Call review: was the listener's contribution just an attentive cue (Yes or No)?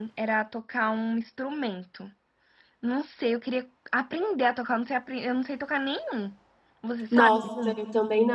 No